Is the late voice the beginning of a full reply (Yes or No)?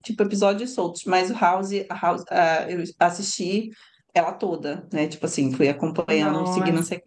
Yes